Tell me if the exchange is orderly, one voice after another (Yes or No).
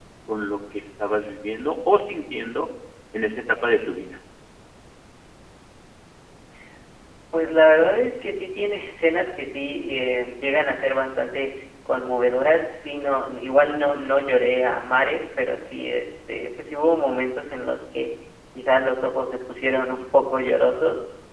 Yes